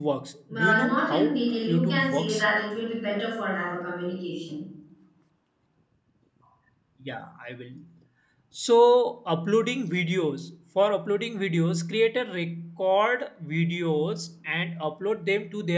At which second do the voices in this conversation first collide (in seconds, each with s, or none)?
0.5 s